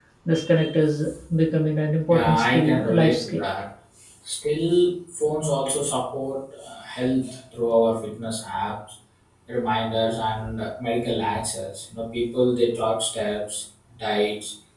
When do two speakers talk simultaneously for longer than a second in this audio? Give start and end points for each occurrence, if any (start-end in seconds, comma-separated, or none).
2.1-3.4